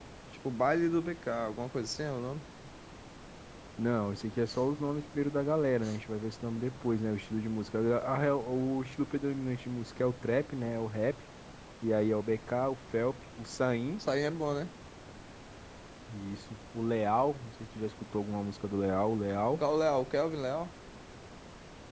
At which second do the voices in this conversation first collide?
none

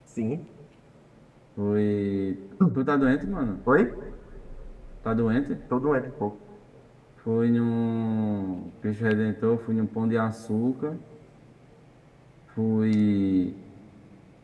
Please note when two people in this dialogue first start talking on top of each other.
none

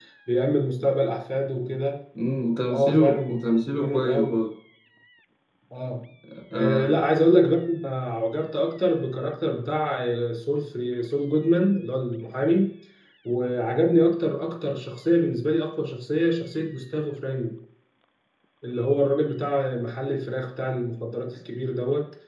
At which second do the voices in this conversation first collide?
2.7 s

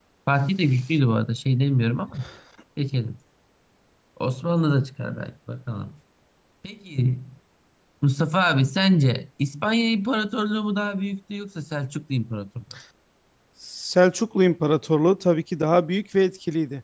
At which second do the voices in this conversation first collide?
none

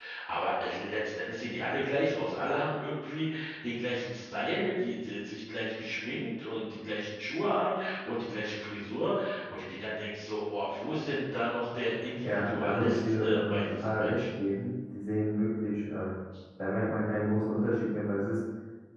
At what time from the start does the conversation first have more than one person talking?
12.0 s

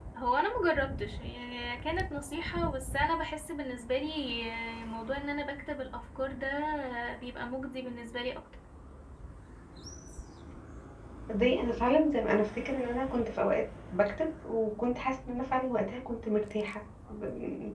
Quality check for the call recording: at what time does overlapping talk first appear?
none

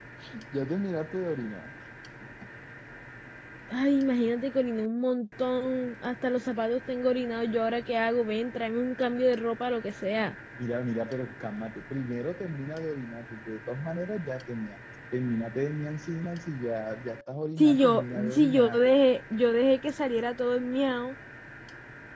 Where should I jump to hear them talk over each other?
17.6 s

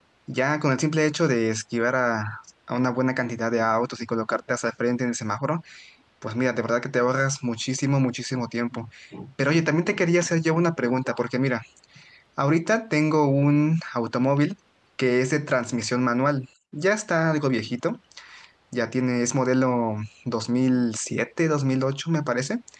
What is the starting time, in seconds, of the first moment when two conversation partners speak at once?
none

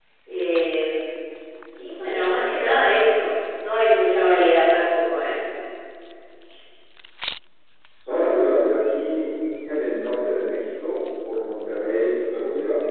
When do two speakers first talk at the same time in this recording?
none

